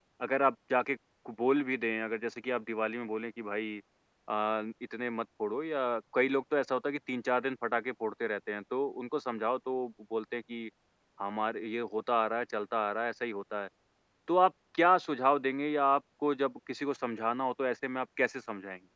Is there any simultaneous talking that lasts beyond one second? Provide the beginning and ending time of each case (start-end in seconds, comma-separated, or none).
none